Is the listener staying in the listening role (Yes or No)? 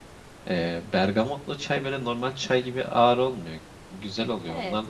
No